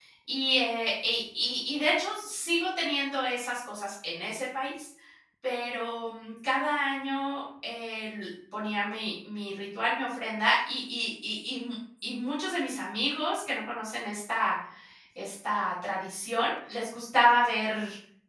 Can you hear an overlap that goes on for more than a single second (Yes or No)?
No